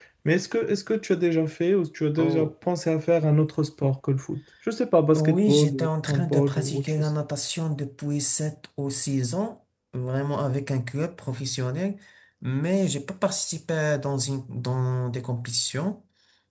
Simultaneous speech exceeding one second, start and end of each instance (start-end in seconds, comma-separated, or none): 5.2-7.1